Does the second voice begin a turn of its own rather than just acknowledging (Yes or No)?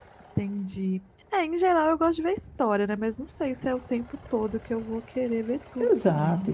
Yes